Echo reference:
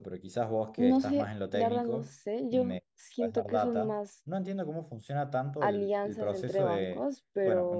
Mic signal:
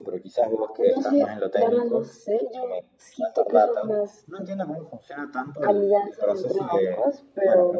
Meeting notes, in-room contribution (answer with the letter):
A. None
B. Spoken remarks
A